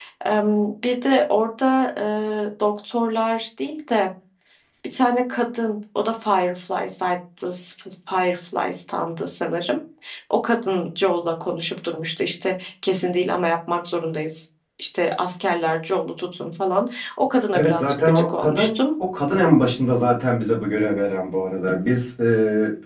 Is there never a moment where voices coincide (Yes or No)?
No